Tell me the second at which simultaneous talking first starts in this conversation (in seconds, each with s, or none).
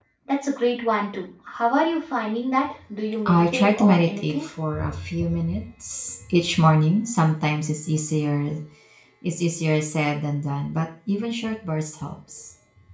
3.3 s